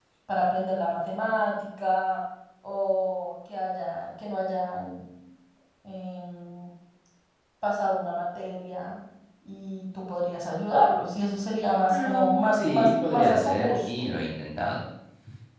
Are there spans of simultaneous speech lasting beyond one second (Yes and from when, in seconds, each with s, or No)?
Yes, from 11.9 s